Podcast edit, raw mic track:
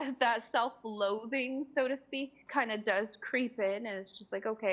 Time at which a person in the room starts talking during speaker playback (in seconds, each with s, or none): none